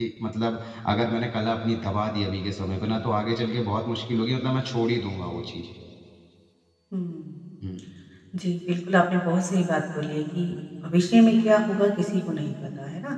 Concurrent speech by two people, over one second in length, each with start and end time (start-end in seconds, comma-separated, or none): none